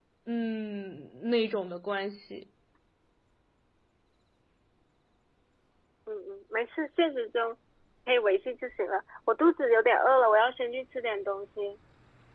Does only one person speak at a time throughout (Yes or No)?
Yes